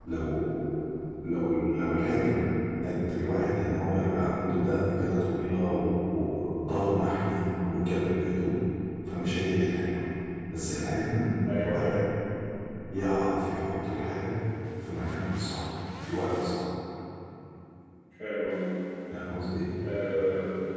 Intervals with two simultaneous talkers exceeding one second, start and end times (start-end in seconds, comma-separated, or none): none